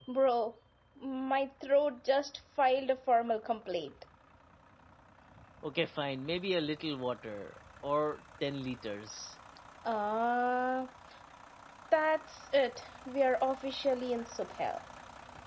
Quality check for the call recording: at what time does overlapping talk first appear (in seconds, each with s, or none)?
none